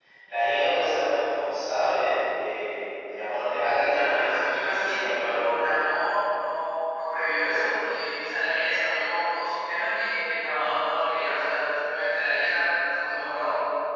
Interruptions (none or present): present